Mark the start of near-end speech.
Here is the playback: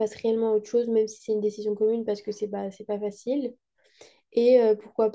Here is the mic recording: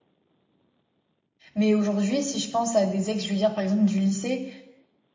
2 s

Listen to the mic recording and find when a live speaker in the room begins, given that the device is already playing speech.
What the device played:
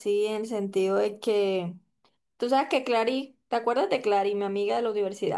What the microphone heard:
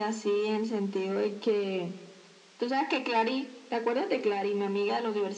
none

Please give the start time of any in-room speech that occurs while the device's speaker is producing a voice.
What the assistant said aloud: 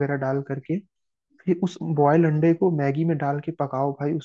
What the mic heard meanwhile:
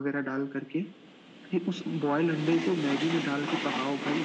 none

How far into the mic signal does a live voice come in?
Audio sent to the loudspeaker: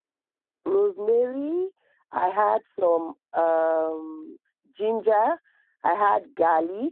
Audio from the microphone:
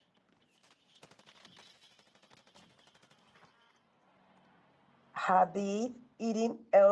5 s

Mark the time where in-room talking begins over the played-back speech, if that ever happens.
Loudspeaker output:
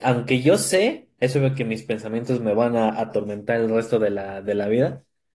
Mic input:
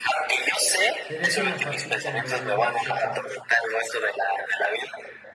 1 s

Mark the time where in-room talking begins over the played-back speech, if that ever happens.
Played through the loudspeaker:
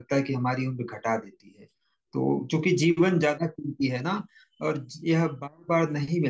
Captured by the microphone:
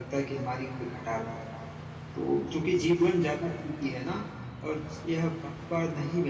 none

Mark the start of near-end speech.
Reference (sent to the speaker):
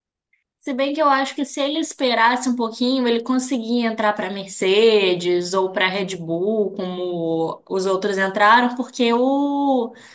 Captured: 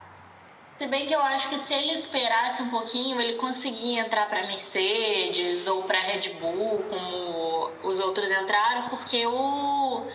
none

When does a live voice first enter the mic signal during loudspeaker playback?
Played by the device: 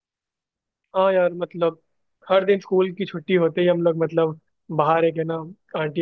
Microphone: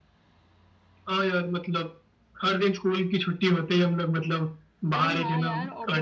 5 s

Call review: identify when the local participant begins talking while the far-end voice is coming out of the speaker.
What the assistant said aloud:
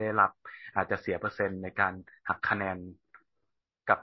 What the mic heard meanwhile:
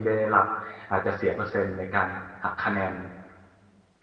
none

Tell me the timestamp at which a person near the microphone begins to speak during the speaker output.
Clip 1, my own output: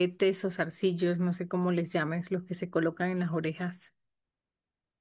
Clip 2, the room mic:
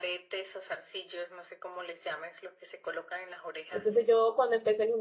4 s

